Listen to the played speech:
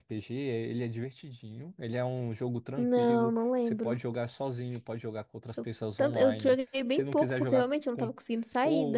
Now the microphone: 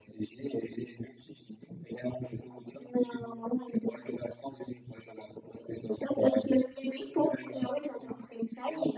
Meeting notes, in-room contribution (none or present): none